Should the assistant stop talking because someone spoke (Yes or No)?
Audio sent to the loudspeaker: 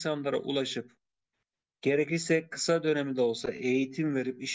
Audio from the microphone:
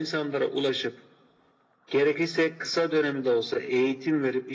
No